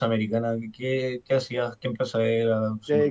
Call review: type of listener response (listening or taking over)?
taking over